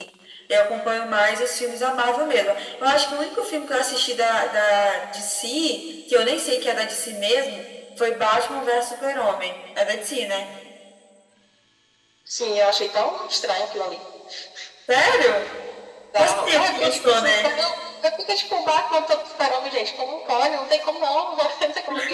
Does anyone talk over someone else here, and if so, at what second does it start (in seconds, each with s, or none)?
16.2 s